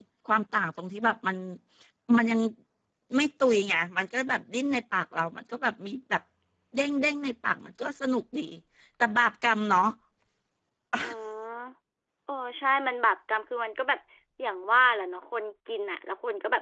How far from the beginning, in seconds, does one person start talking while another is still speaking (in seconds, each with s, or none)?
none